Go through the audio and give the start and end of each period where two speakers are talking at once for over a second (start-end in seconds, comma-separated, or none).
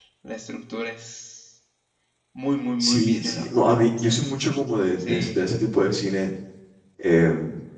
2.8-4.3